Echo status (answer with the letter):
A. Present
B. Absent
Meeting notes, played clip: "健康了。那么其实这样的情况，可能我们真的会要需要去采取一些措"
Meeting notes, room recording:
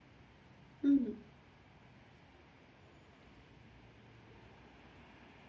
B